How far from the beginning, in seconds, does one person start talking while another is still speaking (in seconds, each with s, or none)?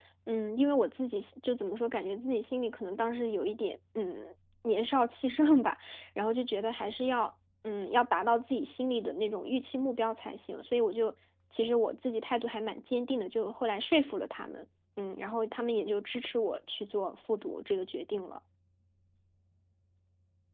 none